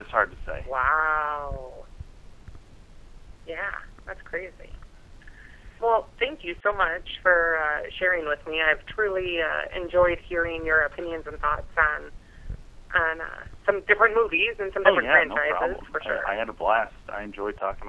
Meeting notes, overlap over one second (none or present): present